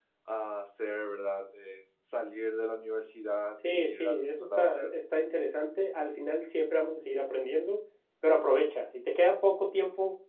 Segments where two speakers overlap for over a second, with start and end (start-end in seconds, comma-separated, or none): 3.7-4.9